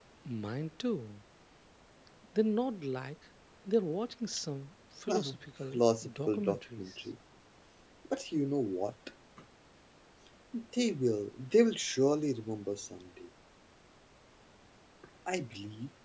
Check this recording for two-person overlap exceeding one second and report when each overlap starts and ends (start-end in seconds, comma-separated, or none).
5.7-7.0